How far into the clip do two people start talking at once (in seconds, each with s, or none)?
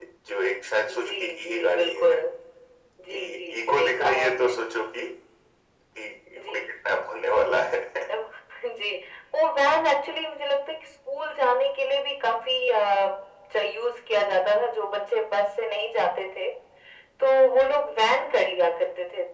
0.9 s